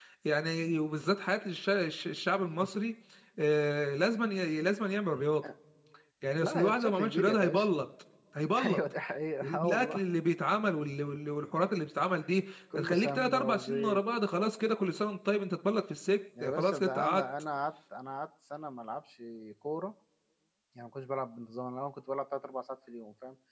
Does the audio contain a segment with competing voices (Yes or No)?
Yes